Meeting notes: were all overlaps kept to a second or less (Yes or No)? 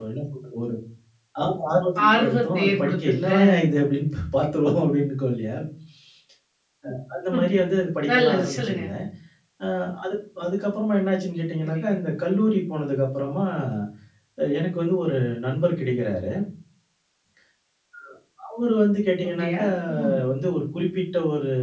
No